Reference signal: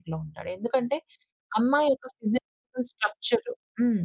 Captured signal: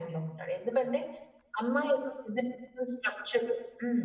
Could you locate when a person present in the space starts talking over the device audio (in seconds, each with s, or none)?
none